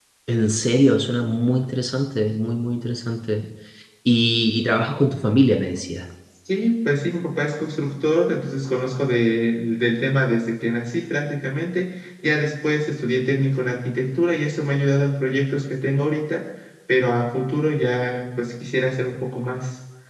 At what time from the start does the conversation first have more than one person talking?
none

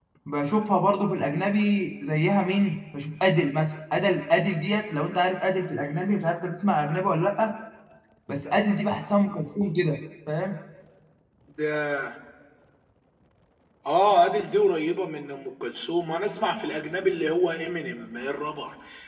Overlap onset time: none

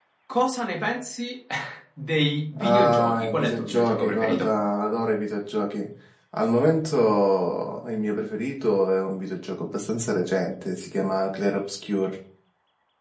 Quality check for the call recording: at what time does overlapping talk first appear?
3 s

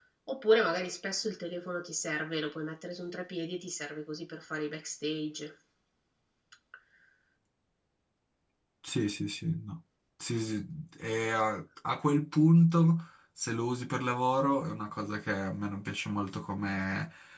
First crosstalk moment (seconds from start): none

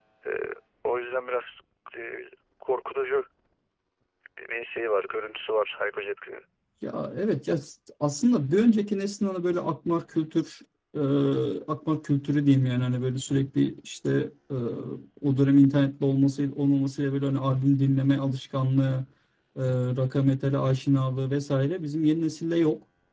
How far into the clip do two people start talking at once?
none

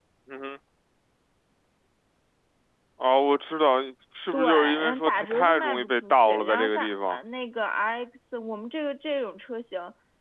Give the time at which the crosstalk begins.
4 s

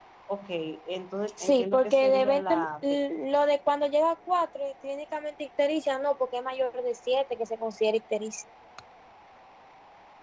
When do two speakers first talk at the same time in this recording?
1 s

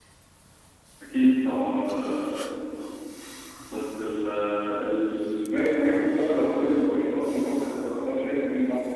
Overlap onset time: 6 s

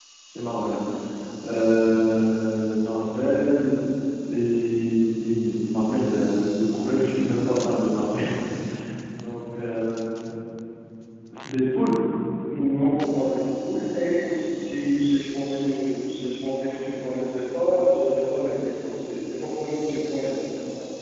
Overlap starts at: none

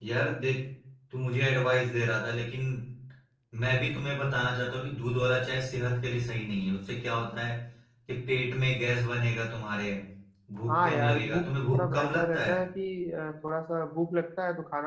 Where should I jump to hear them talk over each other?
11 s

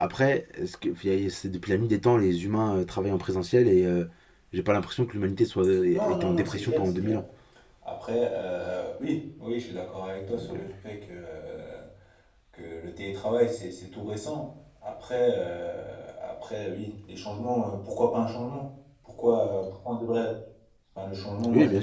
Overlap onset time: 6 s

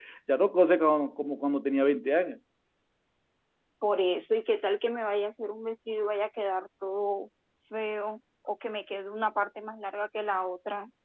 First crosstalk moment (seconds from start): none

